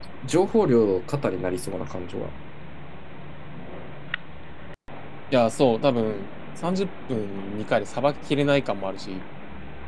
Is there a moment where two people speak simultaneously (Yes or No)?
No